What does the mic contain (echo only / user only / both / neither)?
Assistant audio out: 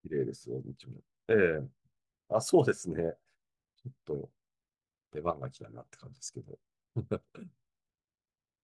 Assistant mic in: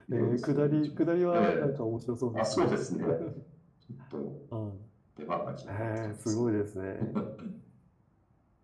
both